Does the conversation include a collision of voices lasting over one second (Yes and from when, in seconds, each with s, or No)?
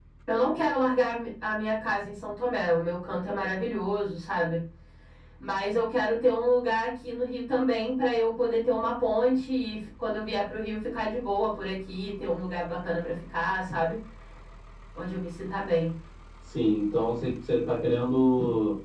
No